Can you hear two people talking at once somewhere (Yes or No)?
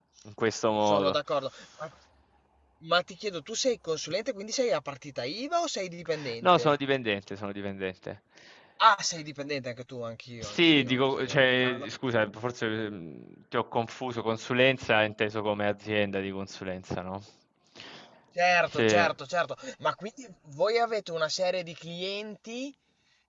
Yes